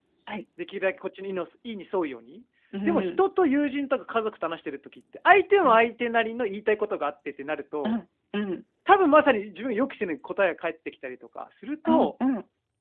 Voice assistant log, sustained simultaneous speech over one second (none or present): none